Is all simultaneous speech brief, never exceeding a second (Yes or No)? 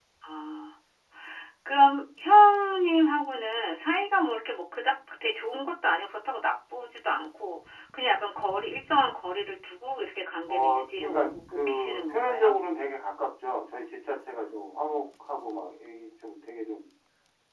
No